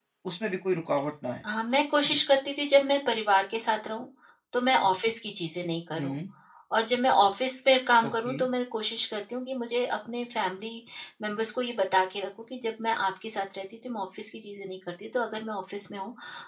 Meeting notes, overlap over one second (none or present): none